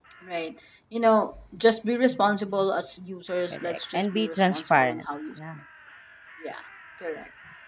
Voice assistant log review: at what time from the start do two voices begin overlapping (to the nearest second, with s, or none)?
4 s